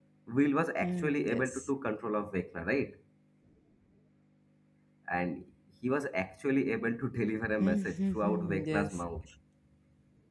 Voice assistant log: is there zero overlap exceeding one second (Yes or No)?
No